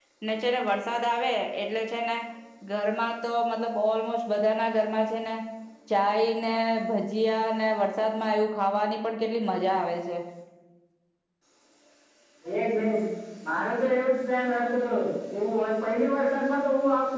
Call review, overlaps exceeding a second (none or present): none